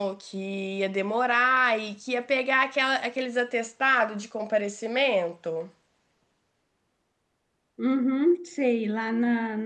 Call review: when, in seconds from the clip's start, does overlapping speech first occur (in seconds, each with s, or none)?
none